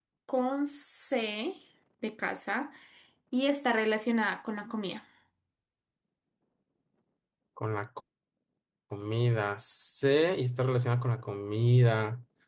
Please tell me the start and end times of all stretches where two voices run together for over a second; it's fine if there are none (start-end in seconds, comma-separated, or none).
none